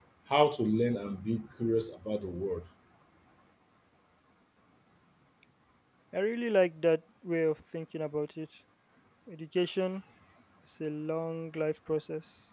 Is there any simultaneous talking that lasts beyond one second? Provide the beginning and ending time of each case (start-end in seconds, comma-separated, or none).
none